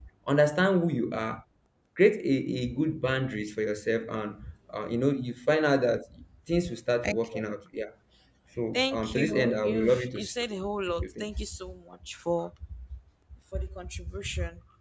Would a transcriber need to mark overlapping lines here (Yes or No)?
Yes